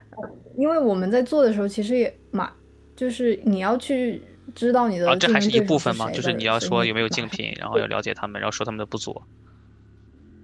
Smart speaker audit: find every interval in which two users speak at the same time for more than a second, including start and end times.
5.1-7.4

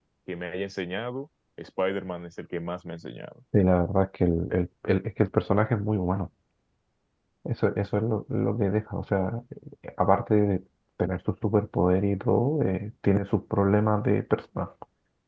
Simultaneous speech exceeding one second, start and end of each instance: none

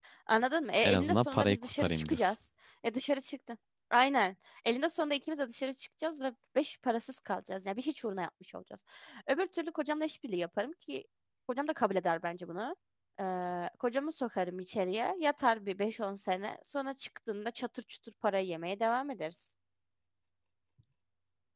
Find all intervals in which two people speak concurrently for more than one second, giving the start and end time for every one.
0.8-2.4

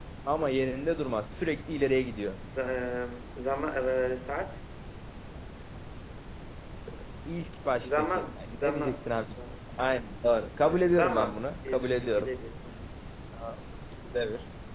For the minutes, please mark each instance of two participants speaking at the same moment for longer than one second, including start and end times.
7.8-9.2, 11.0-12.3

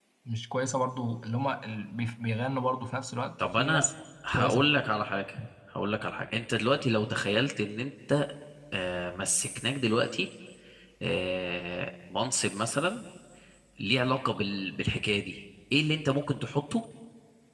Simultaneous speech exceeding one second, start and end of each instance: none

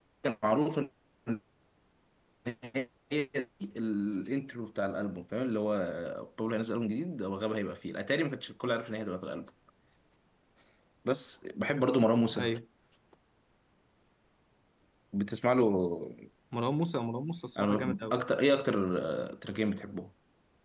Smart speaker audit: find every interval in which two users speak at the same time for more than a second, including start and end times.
none

